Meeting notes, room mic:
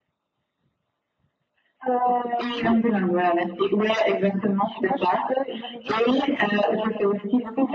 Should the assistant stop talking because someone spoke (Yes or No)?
No